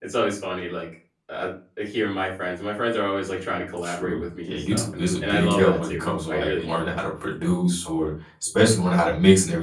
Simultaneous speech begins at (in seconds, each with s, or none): 3.8 s